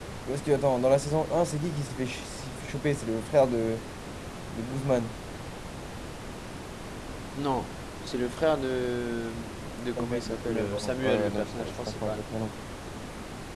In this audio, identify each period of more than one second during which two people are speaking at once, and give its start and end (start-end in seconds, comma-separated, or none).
10.0-12.2